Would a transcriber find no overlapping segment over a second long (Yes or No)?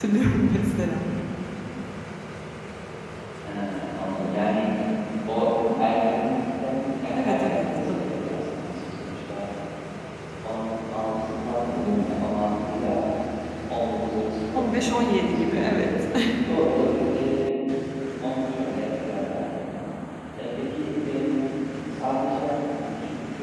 No